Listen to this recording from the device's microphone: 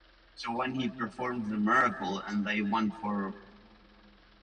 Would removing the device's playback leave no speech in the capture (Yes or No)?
No